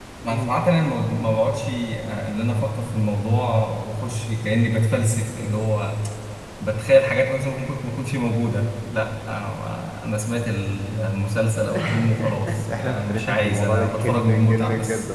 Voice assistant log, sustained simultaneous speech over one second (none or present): present